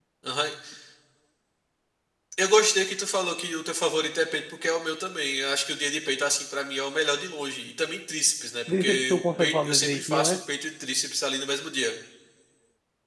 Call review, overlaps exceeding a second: present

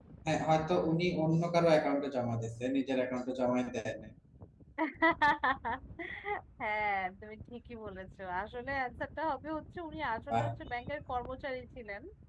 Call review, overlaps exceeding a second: none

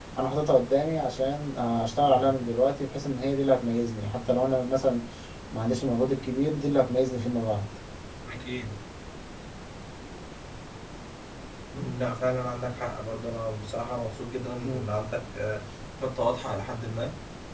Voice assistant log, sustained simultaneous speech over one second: none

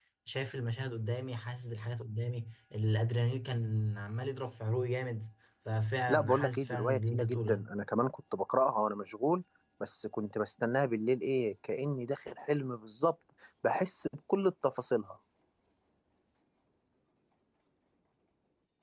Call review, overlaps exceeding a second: present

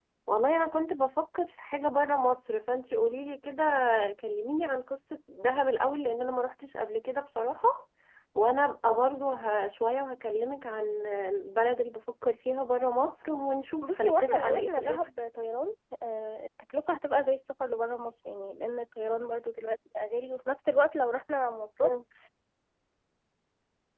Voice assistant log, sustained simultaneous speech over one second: present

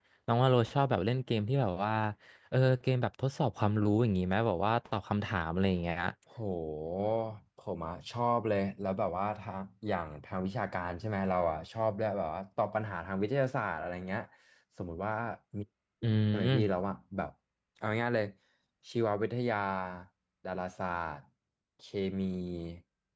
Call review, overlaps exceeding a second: none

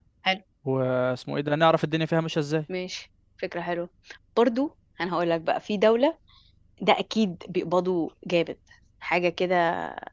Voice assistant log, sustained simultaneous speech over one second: none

